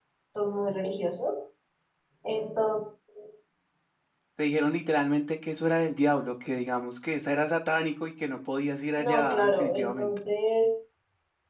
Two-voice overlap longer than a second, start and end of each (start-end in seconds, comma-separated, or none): 9.0-10.2